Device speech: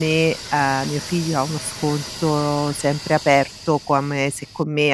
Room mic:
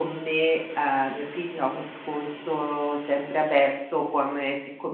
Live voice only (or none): none